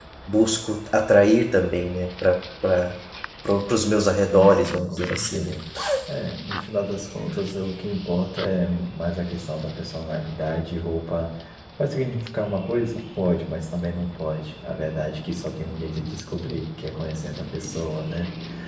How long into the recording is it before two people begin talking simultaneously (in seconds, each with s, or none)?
4.2 s